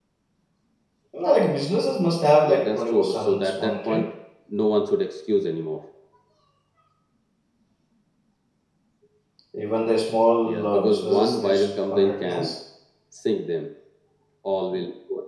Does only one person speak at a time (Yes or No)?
No